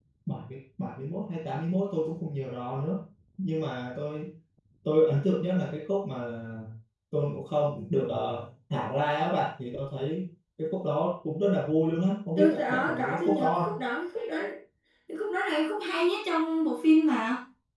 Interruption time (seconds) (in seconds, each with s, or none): 12.4 s